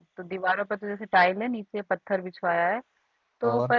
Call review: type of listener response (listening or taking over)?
listening